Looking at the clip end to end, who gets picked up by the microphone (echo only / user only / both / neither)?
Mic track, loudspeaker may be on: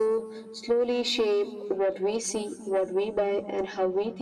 echo only